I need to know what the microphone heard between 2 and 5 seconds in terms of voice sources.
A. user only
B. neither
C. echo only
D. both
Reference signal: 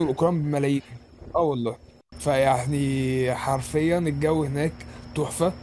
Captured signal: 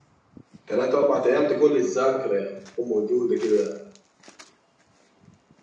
A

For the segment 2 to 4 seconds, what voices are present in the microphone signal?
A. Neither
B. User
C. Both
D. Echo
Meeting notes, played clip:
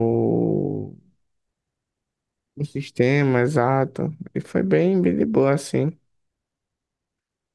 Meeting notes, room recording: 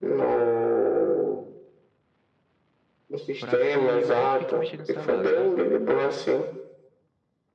C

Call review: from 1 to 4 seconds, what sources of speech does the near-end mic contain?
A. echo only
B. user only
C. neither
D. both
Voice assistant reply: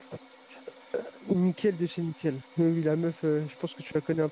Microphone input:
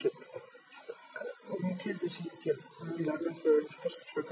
A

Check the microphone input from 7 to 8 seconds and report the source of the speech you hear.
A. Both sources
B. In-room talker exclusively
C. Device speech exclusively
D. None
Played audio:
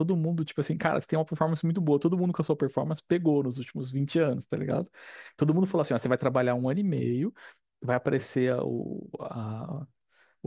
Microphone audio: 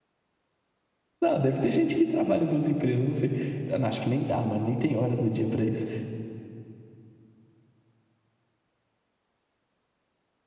D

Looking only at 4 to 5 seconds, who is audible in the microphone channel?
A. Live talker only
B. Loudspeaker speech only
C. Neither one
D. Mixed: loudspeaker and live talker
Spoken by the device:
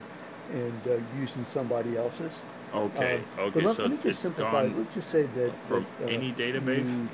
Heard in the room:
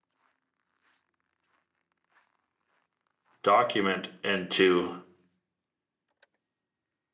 A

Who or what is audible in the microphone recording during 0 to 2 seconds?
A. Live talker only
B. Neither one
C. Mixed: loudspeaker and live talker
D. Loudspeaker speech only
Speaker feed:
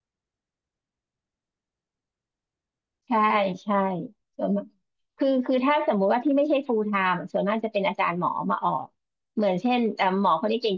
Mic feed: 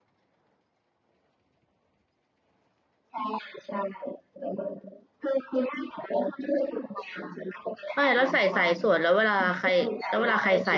B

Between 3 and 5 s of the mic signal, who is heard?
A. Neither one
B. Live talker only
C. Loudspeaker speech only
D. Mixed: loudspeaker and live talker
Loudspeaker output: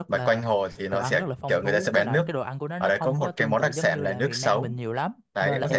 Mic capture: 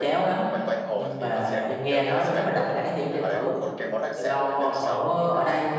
D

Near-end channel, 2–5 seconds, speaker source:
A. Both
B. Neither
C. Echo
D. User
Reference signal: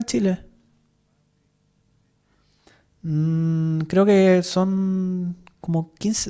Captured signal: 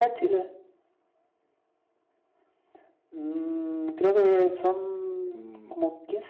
C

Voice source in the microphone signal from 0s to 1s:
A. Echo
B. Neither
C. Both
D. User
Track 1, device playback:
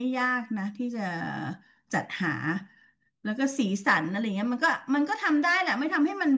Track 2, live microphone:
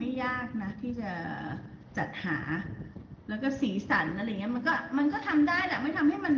A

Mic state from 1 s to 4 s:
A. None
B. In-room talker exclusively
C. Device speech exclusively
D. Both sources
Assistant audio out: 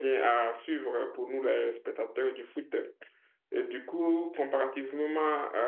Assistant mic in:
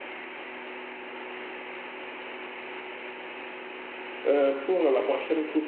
A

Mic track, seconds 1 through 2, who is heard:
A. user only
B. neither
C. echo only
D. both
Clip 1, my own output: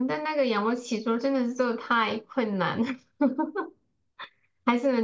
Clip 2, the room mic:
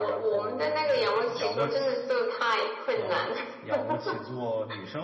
D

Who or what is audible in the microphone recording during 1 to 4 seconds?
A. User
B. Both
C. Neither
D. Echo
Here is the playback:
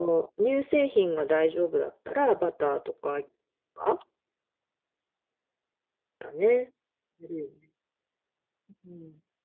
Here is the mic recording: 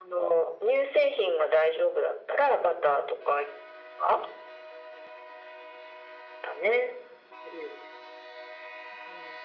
D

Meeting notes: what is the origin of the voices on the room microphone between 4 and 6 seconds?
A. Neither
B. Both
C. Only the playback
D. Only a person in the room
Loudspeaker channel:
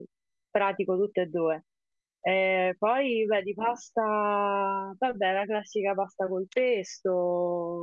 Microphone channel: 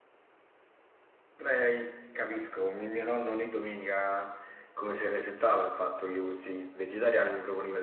D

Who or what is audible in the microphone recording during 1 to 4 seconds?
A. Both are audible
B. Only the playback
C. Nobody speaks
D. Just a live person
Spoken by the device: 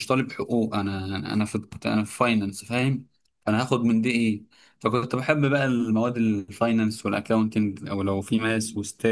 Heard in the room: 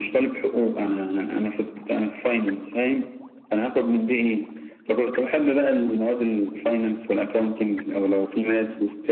B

